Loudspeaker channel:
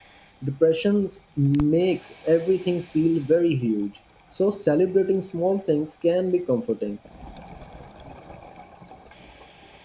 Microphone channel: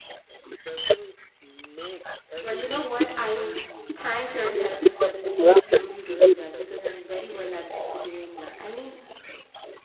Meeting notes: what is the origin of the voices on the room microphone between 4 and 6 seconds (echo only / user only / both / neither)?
both